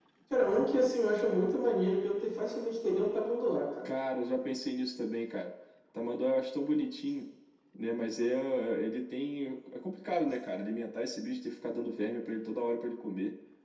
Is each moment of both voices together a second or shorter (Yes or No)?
Yes